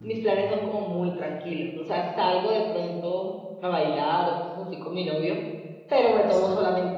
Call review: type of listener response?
listening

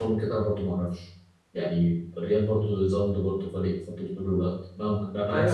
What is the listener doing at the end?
taking over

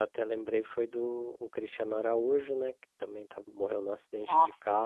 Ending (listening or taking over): listening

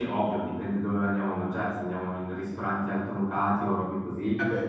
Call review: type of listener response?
listening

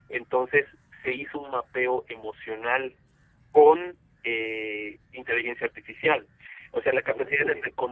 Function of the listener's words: listening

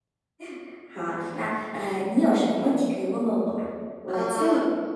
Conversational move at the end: taking over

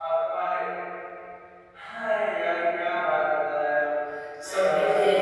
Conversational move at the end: taking over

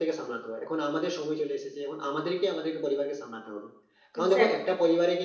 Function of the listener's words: listening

